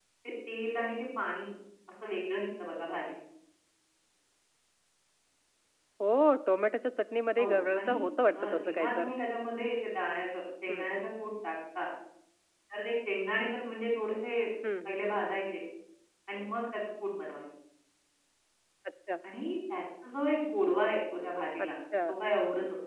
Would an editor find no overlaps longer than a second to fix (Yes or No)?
No